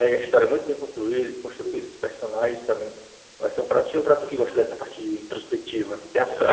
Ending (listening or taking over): taking over